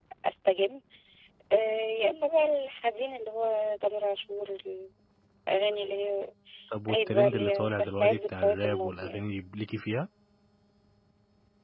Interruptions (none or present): present